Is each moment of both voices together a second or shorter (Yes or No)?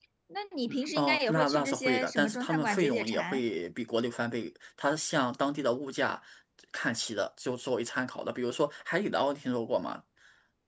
No